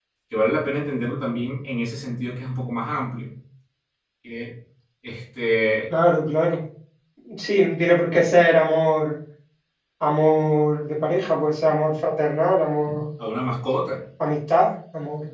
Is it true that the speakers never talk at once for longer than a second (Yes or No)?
Yes